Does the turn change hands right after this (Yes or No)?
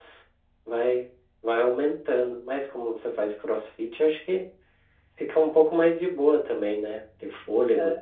Yes